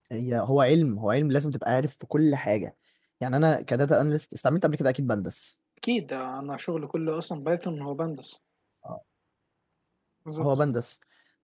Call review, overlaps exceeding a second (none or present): none